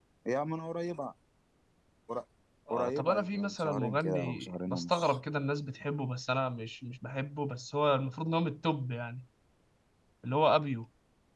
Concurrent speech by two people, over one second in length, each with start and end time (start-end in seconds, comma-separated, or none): 2.7-5.2